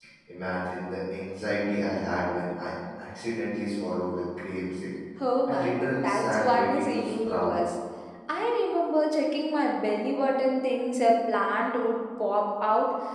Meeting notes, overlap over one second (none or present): present